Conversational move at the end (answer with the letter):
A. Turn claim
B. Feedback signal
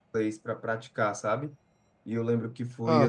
B